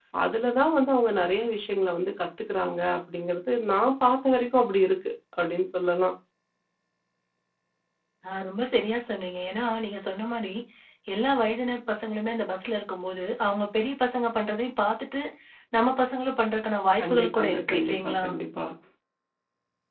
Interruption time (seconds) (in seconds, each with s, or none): 17.0 s